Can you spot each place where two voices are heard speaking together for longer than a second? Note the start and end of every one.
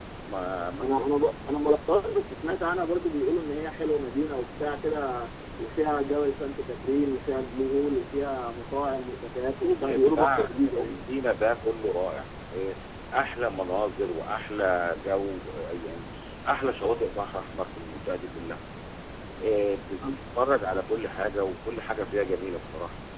9.4-10.9

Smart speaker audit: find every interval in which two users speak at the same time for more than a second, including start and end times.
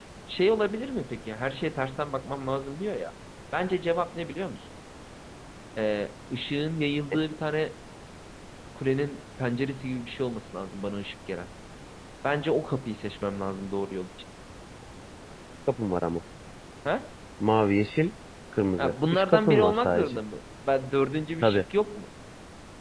18.8-20.2

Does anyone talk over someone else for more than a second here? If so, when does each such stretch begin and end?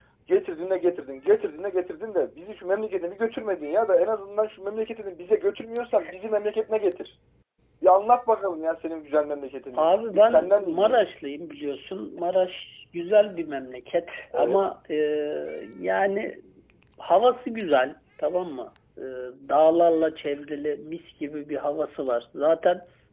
9.7-11.0

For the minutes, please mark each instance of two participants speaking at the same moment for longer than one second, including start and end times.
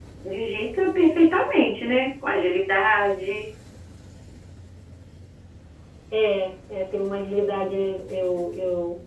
none

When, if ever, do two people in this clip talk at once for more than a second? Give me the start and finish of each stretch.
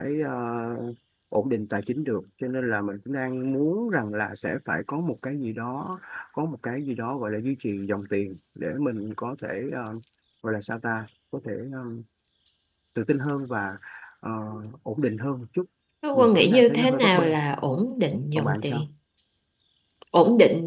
16.1-17.4

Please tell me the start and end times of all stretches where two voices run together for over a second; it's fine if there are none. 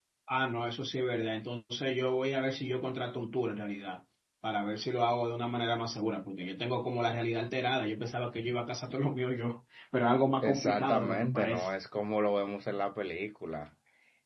10.4-11.7

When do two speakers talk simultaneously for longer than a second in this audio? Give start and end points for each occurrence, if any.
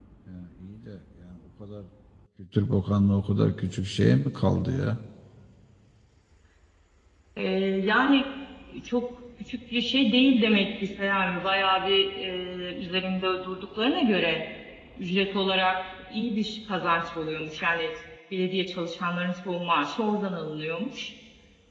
none

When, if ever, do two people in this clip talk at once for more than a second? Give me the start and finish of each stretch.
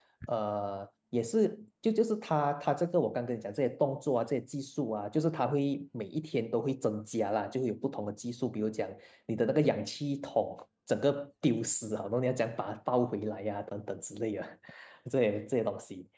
none

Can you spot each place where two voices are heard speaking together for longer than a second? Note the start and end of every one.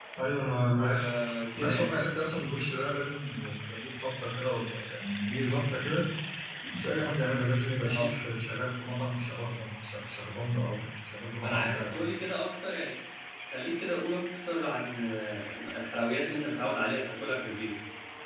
none

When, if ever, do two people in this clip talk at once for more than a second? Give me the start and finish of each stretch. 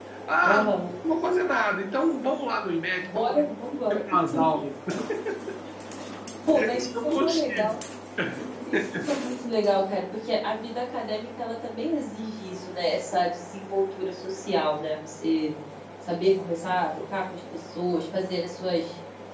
6.5-7.8

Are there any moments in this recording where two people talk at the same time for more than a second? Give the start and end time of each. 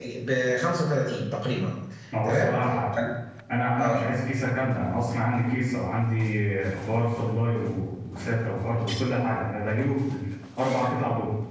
none

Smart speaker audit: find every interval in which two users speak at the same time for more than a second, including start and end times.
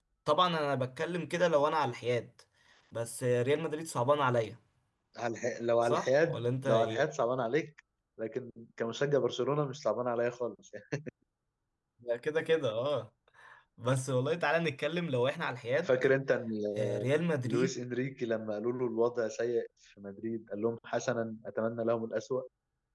5.8-7.1

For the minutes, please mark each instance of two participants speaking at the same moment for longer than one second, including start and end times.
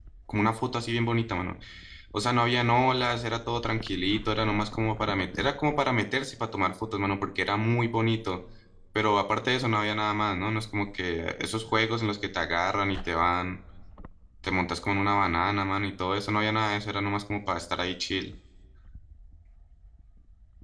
none

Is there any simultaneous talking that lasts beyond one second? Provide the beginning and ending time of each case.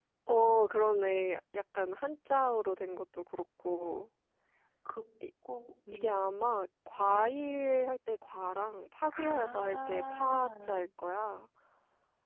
9.2-10.9

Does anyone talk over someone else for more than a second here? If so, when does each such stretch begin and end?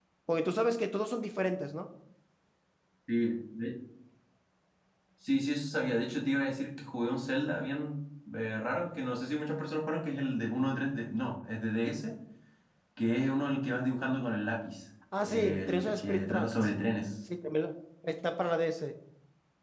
15.2-16.7

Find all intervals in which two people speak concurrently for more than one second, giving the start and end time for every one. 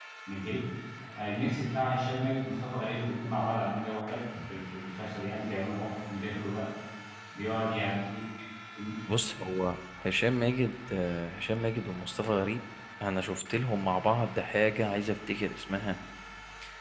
none

